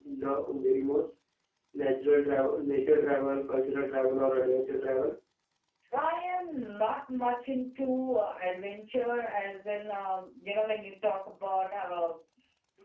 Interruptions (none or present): none